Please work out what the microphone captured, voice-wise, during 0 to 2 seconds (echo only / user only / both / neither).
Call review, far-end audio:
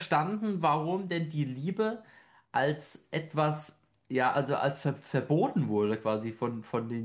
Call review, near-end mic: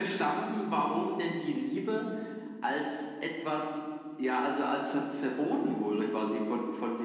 echo only